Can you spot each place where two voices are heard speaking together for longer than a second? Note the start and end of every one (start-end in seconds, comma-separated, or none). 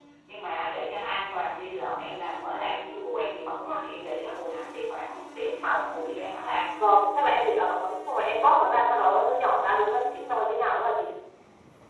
none